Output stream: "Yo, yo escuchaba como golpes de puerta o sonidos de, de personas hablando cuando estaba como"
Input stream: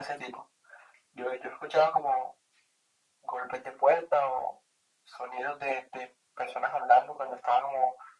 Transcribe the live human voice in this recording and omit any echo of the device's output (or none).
none